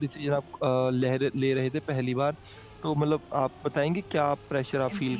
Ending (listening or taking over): taking over